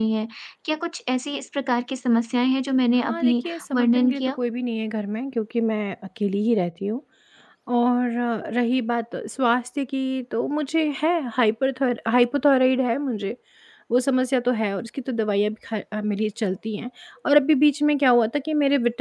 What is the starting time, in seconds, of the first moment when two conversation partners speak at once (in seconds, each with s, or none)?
3.0 s